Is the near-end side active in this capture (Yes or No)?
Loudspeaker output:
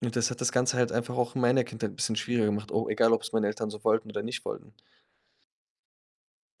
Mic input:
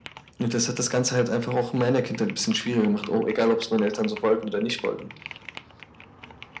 No